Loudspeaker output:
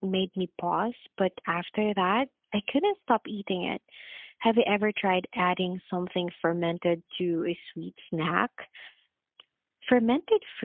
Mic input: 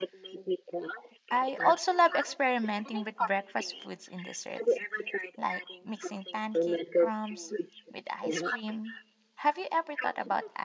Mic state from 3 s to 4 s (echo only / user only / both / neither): both